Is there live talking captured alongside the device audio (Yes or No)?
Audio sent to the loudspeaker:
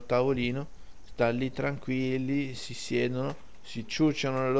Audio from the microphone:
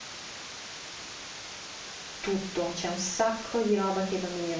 Yes